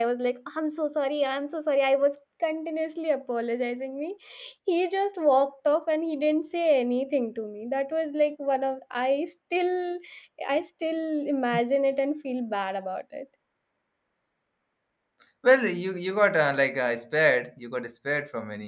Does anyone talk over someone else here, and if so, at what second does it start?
none

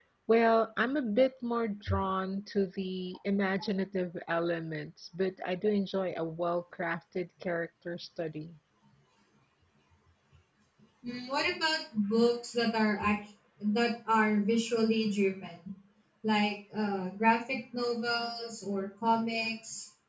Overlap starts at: none

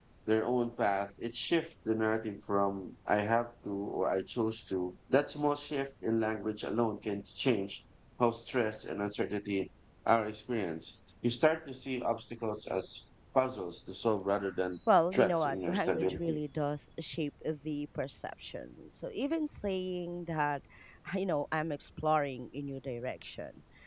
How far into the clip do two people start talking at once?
15.1 s

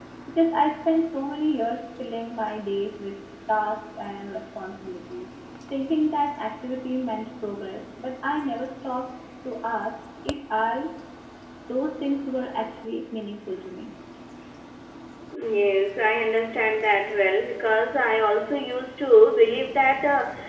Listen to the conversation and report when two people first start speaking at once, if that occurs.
none

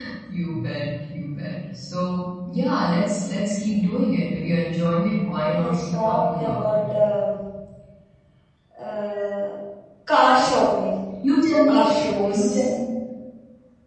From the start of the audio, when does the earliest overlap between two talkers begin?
5.3 s

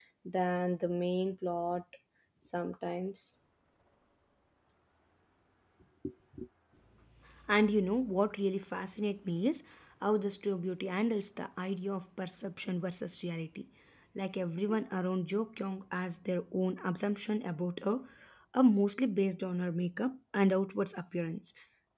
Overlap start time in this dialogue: none

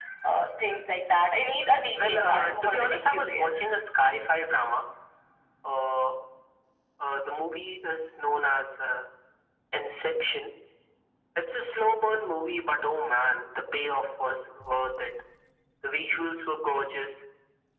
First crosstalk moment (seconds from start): 2.0 s

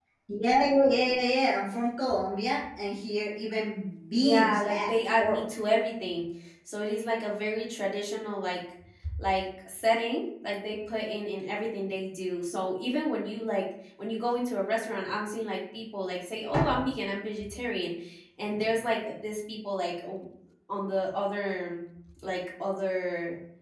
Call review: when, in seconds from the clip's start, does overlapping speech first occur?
4.2 s

